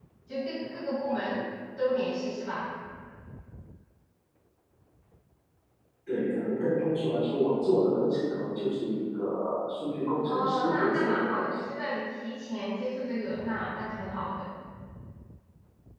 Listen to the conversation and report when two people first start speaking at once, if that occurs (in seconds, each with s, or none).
10.2 s